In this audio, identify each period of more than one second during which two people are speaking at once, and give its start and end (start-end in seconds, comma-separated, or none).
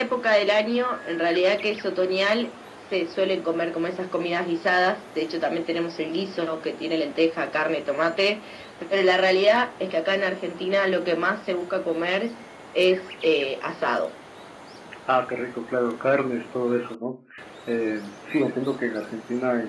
none